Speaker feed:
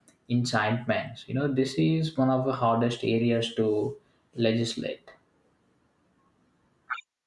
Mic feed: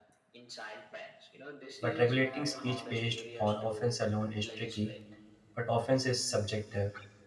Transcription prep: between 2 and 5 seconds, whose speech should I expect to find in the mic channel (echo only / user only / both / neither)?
both